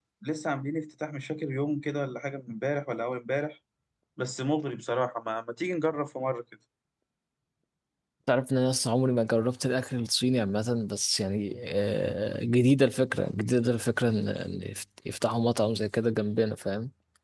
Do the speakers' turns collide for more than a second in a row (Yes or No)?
No